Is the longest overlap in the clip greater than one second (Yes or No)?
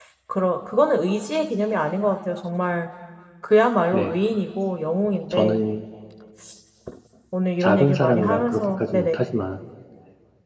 Yes